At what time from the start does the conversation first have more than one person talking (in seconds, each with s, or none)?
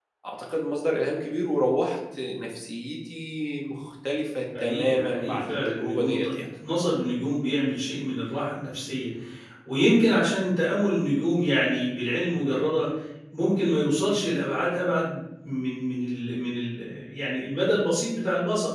4.5 s